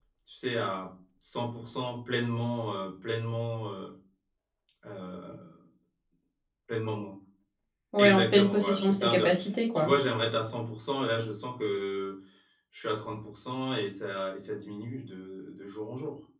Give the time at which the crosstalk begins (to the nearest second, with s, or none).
8 s